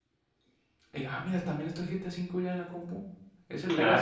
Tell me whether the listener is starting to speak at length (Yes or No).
No